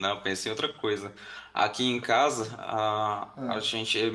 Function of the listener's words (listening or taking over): listening